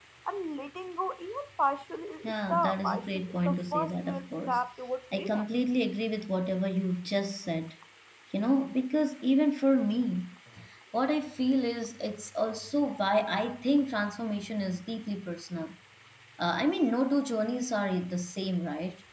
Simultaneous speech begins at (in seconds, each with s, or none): 2.2 s